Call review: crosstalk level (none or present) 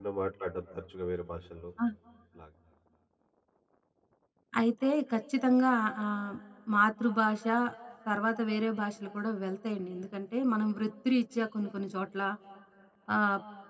none